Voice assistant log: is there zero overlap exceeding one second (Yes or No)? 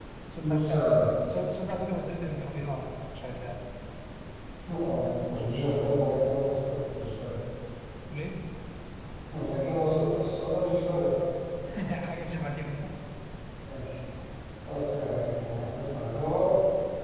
Yes